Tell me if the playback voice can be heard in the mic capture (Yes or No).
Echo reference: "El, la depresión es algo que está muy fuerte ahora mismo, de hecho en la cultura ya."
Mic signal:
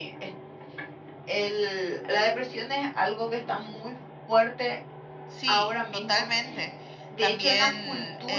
Yes